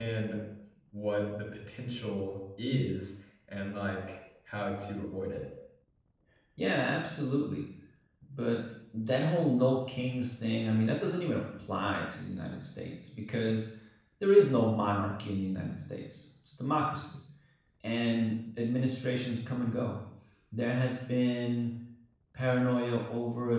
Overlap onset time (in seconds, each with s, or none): none